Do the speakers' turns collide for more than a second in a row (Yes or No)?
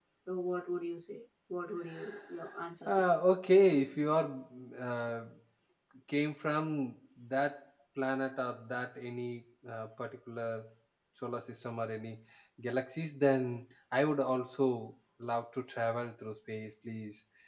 No